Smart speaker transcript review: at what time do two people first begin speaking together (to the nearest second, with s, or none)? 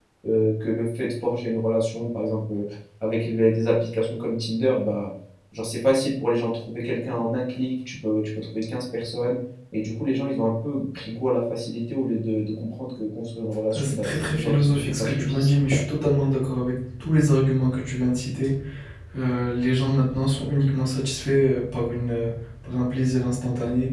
14 s